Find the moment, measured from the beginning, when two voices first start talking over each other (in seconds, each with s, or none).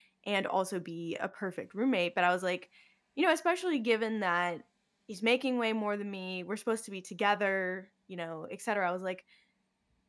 none